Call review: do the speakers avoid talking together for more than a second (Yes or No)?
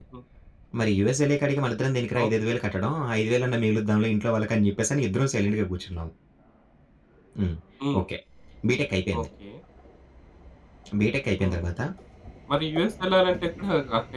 Yes